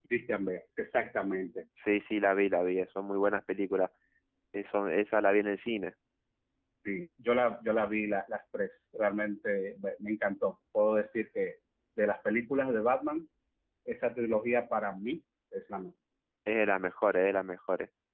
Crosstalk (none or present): none